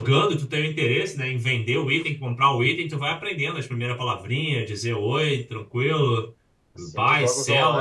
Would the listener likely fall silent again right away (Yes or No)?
No